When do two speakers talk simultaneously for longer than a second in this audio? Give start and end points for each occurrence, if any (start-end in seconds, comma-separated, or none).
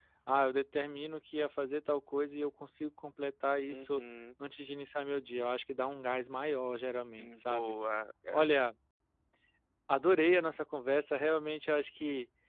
none